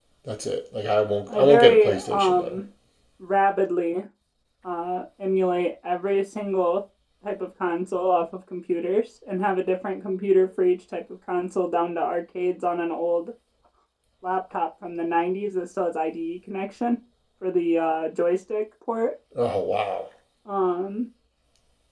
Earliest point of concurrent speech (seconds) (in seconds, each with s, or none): 1.3 s